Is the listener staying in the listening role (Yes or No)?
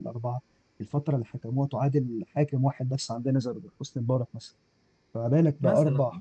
Yes